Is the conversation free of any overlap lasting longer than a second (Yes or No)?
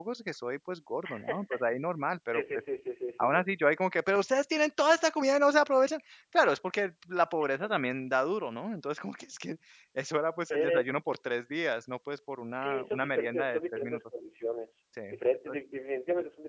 No